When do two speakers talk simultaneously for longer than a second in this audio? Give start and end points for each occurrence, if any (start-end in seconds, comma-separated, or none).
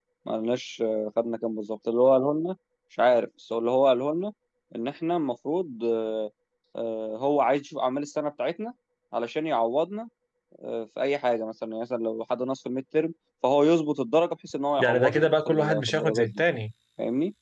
14.8-16.4